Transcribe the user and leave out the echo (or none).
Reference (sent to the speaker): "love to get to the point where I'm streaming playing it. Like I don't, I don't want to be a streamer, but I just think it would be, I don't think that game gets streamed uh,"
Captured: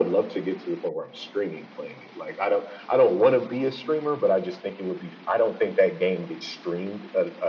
none